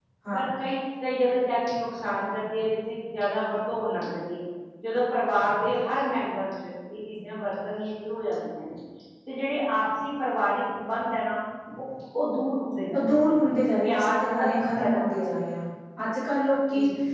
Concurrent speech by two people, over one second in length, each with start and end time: 13.8-15.3

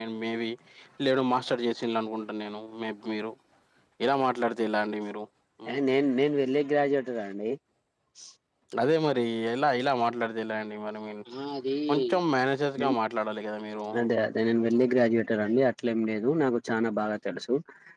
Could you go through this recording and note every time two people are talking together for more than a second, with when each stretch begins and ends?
none

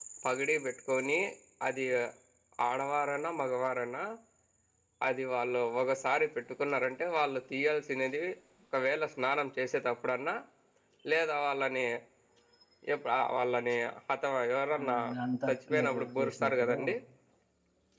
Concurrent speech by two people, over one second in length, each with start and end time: 15.5-16.8

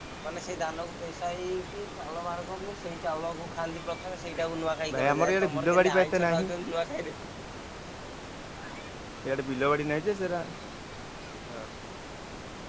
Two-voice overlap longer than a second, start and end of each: 5.0-6.5

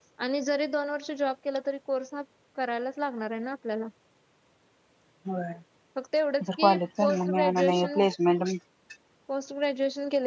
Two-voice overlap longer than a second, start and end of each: 6.6-8.0

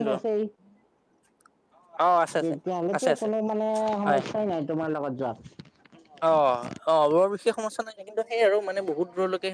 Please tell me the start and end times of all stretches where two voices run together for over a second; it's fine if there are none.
none

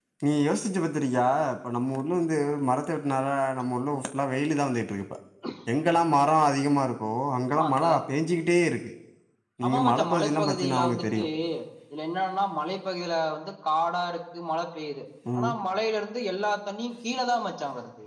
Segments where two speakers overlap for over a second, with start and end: 9.7-11.2

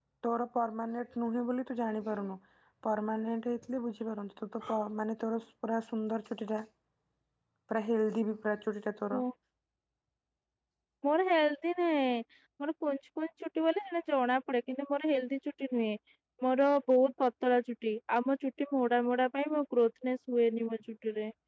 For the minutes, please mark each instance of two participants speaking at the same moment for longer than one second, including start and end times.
none

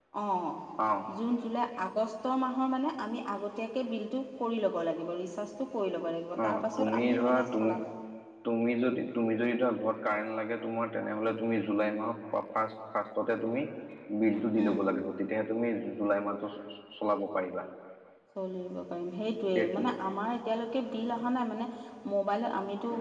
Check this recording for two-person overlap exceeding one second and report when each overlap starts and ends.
6.4-7.7

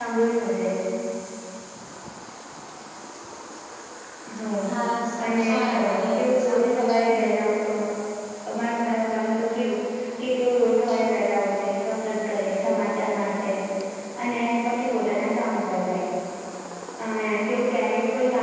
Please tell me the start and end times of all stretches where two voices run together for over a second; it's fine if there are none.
5.2-7.2

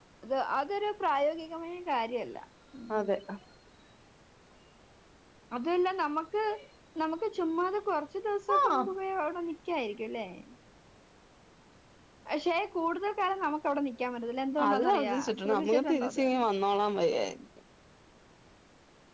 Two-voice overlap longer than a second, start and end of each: 14.7-16.2

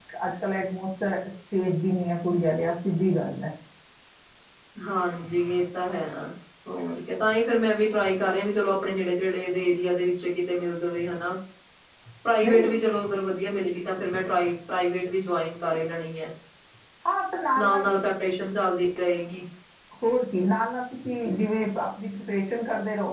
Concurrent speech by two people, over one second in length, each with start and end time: none

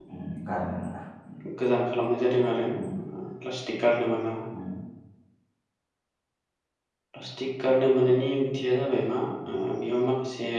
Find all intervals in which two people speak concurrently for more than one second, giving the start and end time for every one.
none

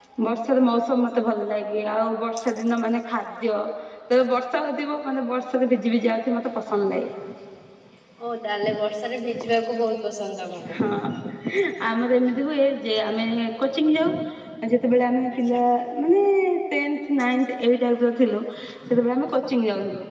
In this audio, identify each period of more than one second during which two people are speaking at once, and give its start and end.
none

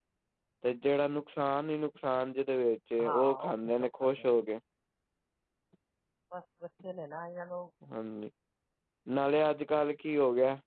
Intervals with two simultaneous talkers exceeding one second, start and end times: 3.0-4.3

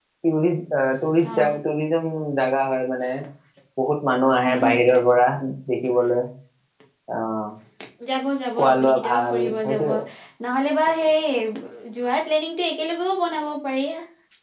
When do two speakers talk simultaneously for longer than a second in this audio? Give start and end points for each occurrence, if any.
8.6-9.9

